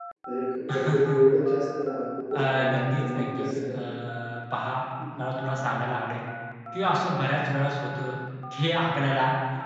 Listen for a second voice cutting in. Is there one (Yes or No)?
Yes